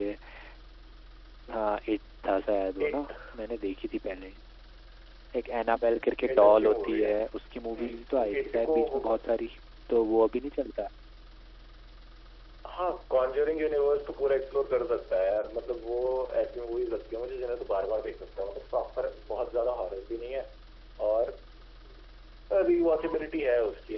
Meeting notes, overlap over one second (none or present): present